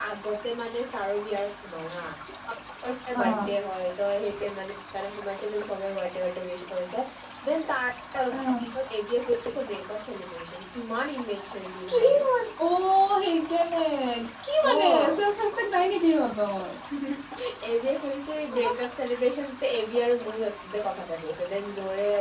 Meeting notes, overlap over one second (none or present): none